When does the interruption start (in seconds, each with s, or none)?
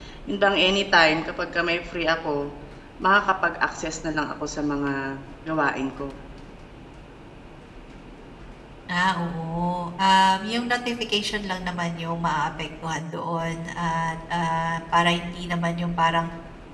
none